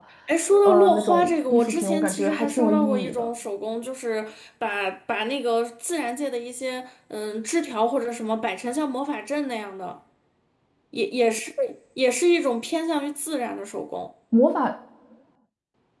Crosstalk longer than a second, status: present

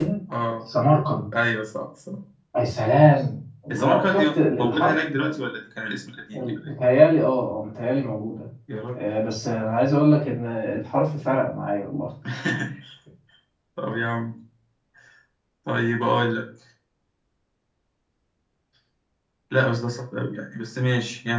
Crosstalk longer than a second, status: present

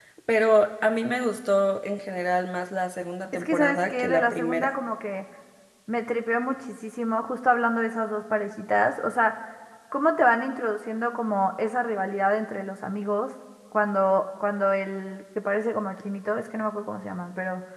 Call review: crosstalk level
present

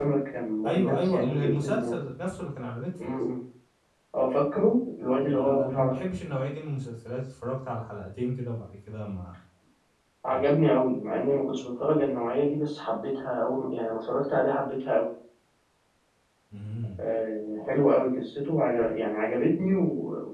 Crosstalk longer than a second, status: present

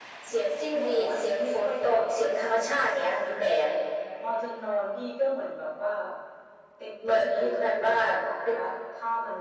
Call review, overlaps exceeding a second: present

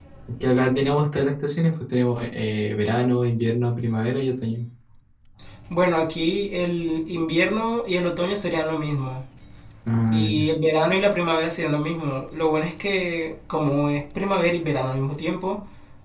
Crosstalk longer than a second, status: none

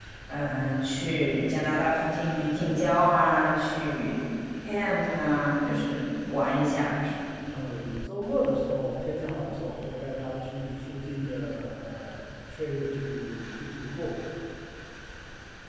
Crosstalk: none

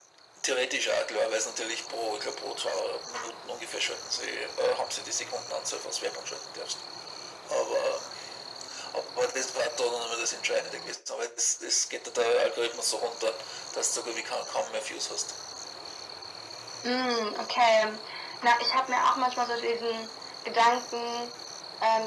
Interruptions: none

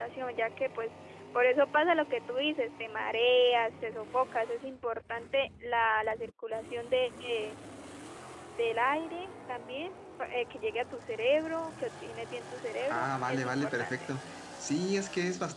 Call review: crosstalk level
present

